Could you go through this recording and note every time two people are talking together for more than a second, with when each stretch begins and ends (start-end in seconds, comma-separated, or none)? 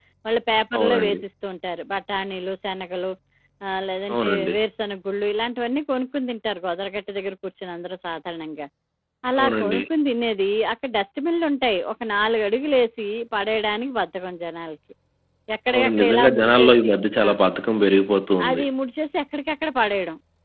15.7-16.9